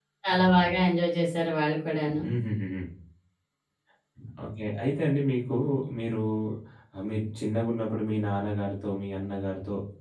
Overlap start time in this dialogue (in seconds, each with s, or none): none